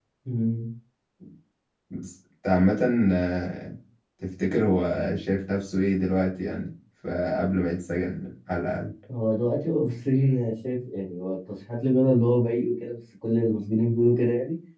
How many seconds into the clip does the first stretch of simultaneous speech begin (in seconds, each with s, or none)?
none